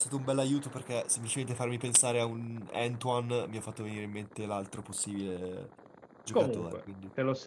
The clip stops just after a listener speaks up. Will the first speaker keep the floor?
No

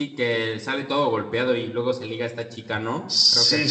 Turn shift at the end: Yes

